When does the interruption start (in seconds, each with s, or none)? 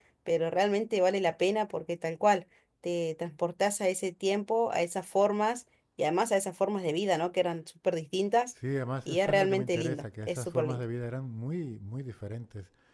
9.1 s